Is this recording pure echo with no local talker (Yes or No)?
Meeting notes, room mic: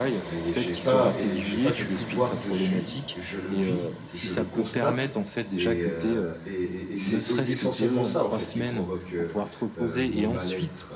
No